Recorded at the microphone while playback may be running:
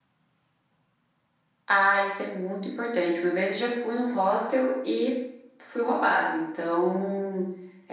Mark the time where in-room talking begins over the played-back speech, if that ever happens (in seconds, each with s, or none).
none